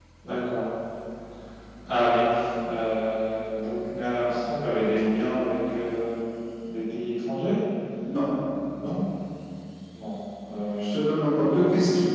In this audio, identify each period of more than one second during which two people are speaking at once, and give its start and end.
none

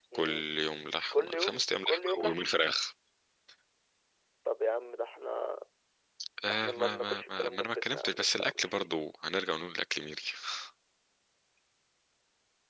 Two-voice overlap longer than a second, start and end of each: 1.1-2.5, 6.5-8.9

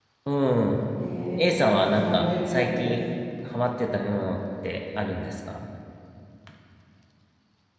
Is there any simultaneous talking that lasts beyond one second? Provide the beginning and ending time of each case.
1.7-2.9

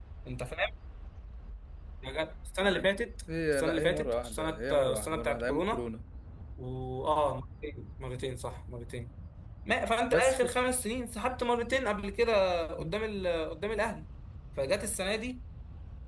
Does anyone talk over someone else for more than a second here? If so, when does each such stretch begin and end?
3.5-5.8

